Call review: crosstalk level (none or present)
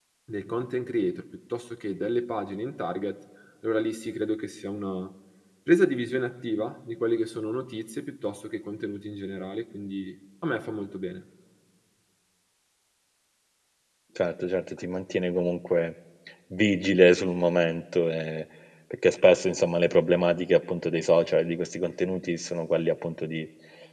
none